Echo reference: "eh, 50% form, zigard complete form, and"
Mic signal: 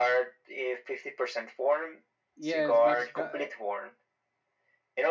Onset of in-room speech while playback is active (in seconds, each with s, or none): 2.4 s